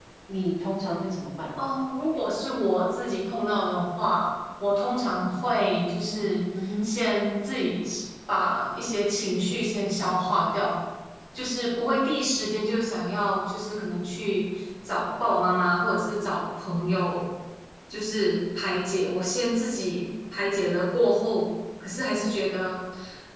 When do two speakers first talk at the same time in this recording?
none

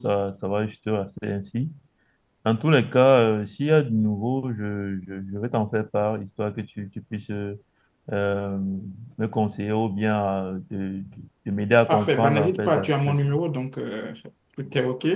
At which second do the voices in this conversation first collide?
11.9 s

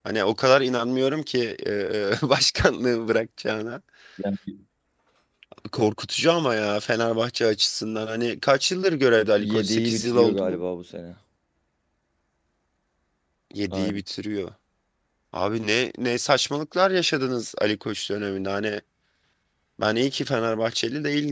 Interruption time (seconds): 9.4 s

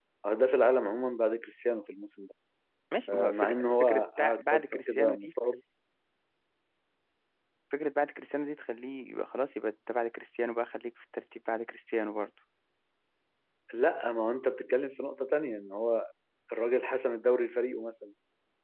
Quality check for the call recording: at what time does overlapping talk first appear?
3.1 s

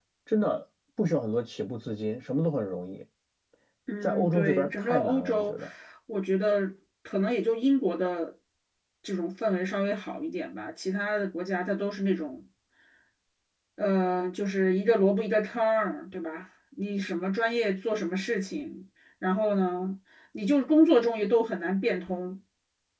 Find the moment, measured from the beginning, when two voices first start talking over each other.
4.0 s

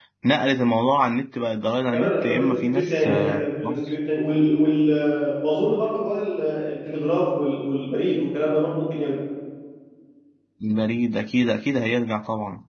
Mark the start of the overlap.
1.9 s

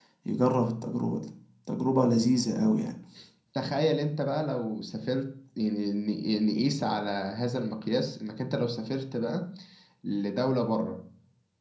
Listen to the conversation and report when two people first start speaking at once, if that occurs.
none

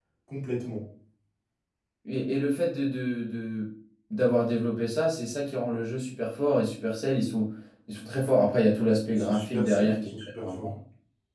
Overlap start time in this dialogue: 9.1 s

